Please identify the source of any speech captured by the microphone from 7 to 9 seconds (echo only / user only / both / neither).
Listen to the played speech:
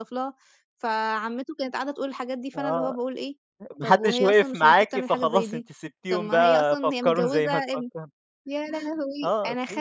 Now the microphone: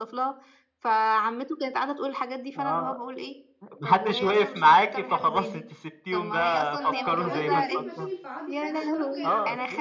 both